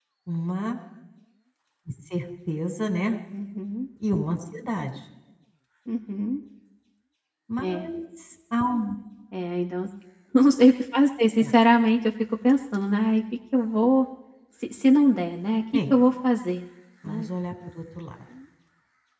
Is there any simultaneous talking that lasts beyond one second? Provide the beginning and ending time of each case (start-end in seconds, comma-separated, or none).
none